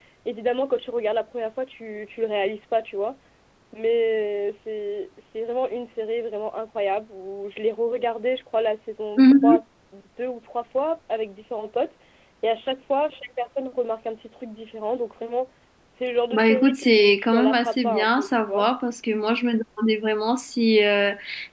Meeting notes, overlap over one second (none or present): present